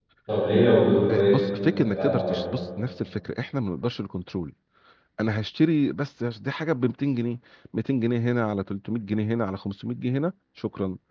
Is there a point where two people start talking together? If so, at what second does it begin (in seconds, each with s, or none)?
1.1 s